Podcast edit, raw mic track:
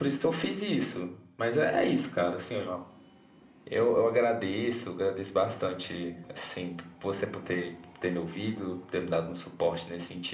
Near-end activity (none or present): none